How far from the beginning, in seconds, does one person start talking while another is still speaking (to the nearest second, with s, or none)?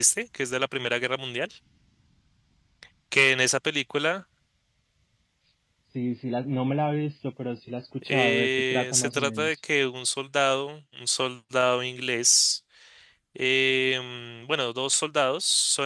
8 s